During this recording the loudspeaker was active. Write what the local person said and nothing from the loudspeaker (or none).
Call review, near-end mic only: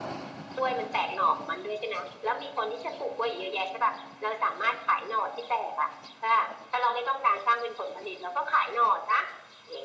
none